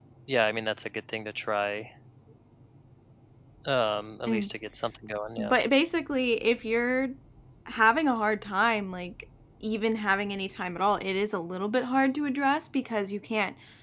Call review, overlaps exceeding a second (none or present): none